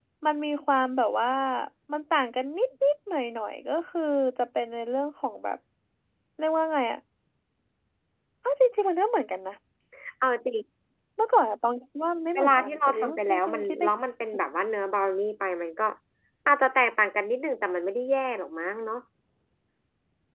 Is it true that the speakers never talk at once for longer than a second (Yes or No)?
No